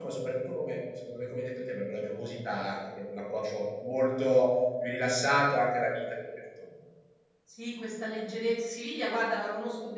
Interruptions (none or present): none